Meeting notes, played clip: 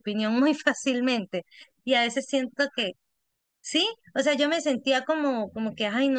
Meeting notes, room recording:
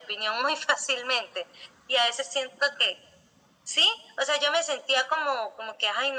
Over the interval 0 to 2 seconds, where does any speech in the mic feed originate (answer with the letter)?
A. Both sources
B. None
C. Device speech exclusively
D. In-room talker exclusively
C